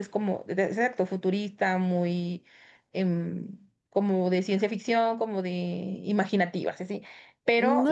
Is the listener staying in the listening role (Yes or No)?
No